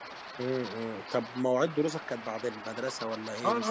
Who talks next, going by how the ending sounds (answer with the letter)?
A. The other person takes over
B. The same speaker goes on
A